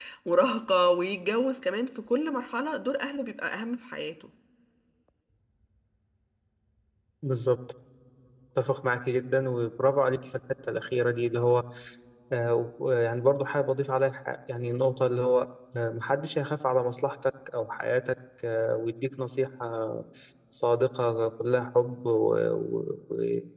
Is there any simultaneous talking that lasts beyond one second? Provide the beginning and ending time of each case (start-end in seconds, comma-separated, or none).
none